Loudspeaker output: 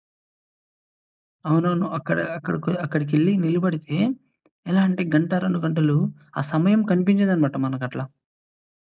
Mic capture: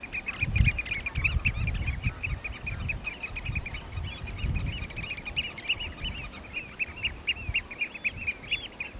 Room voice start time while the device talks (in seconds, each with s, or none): none